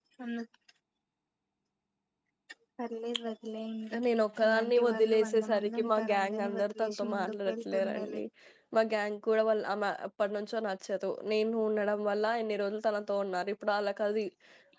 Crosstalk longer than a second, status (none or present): present